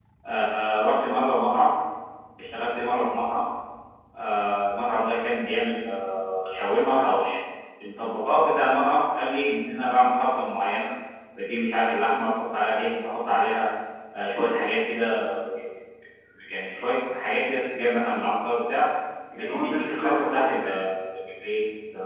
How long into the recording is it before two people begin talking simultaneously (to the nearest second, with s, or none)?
19 s